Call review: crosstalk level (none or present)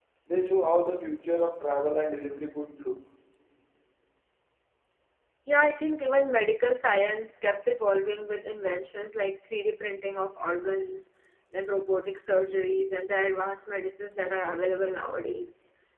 none